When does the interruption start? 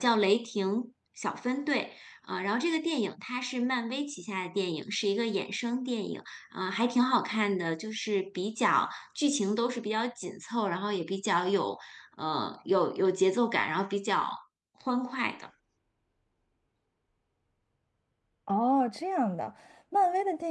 none

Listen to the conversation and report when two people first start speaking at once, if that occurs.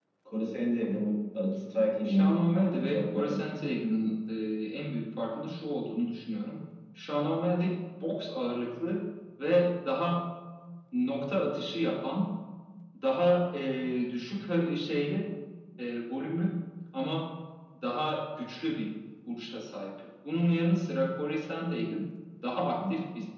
2.0 s

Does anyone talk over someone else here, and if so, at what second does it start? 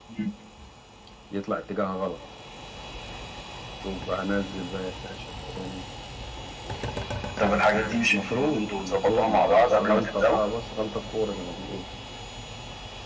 8.1 s

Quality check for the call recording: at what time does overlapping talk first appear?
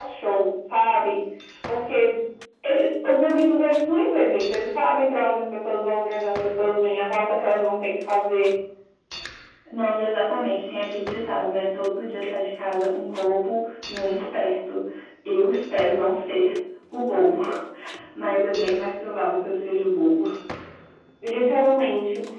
none

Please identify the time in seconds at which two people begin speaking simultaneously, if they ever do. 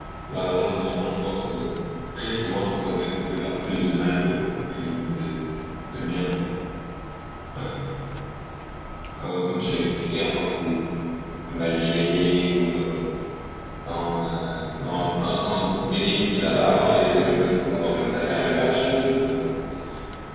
16.3 s

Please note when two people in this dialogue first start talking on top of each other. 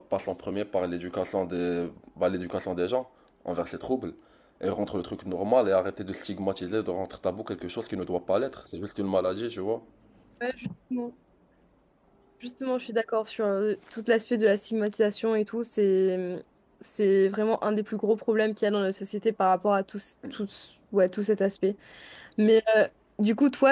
none

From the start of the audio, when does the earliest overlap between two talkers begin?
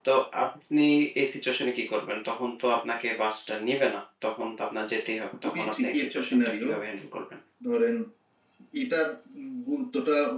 5.4 s

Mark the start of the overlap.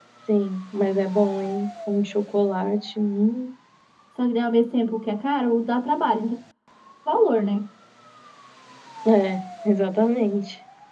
none

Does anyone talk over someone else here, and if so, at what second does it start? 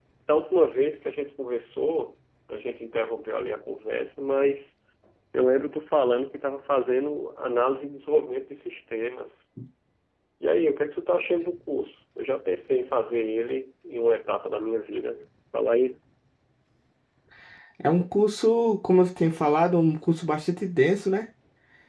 none

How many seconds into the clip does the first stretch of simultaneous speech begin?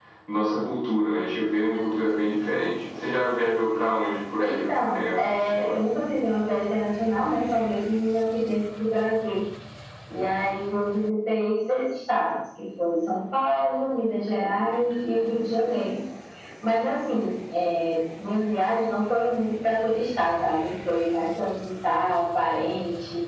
4.4 s

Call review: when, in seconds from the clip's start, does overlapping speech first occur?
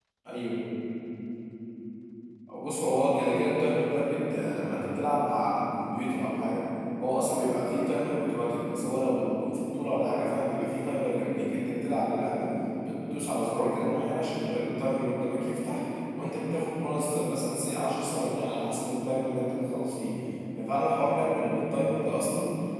none

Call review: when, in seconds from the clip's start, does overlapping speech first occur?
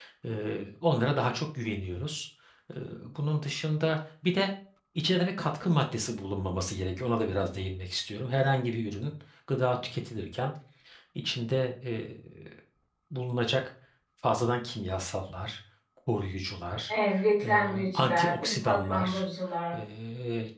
17.5 s

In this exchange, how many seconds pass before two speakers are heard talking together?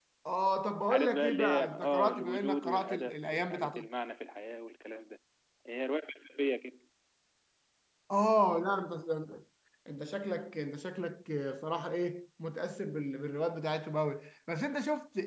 0.9 s

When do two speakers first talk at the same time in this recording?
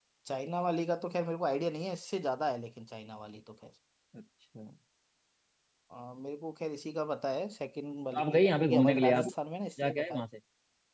8.1 s

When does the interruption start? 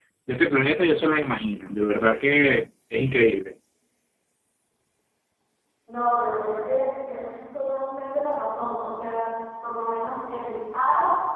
none

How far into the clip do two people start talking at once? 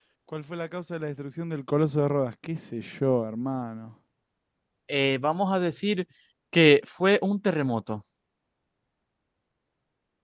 none

